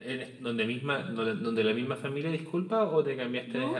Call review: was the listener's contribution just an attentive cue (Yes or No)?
No